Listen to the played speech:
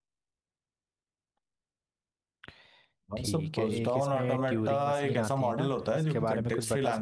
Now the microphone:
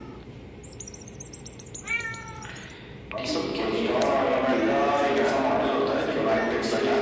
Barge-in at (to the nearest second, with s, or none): none